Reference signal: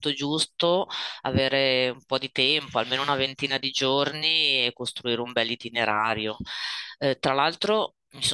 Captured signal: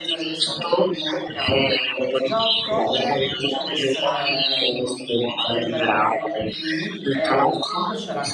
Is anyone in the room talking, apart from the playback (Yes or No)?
Yes